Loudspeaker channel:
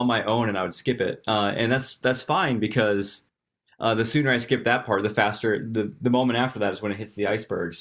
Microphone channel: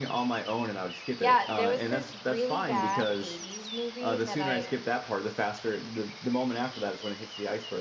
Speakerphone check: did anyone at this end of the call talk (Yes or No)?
Yes